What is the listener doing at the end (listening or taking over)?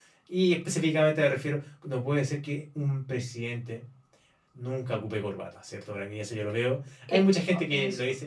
listening